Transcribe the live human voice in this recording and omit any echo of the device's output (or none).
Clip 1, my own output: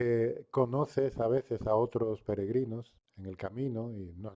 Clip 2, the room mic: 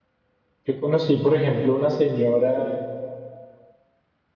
Yo conocí, por ejemplo, una señora